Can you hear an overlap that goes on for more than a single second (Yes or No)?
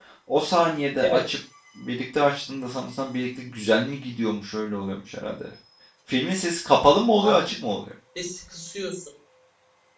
No